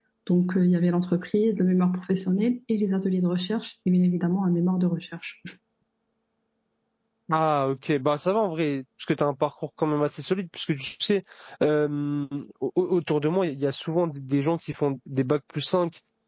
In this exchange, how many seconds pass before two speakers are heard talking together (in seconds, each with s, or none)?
none